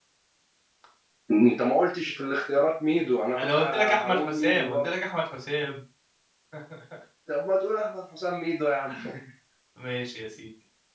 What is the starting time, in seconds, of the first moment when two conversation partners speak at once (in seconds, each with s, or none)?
3.4 s